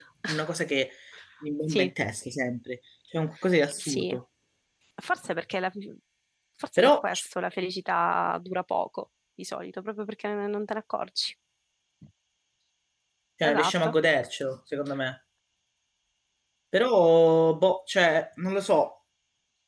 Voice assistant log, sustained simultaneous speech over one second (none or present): none